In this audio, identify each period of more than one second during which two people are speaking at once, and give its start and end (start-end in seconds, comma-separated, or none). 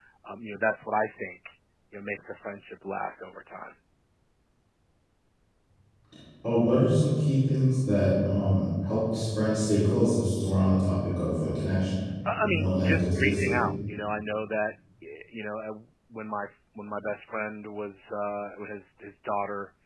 12.4-13.6